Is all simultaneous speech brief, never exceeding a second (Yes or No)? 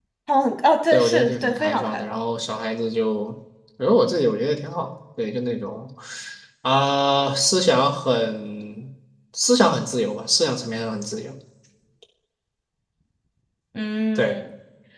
No